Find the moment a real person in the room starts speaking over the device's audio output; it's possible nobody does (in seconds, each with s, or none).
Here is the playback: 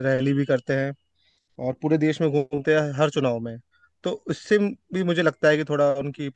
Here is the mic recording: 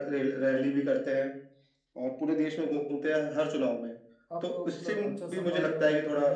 4.3 s